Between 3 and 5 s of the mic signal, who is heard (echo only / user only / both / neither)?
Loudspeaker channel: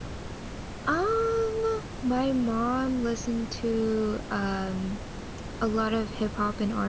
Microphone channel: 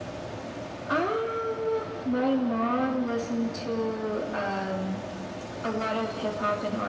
echo only